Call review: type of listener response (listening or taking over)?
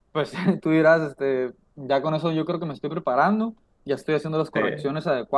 listening